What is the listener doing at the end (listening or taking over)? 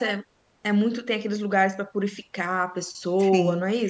taking over